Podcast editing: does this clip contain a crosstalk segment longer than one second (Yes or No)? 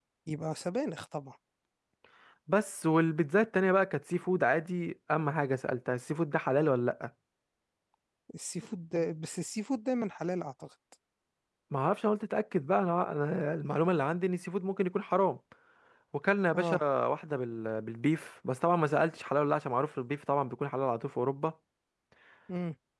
No